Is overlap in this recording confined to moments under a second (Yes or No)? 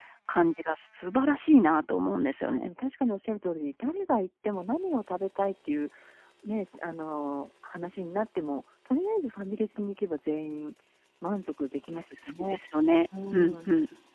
Yes